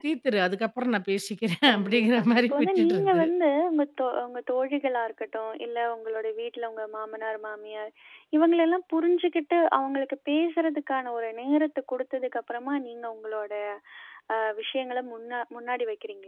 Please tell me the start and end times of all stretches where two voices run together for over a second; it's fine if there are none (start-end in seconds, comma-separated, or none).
1.7-3.2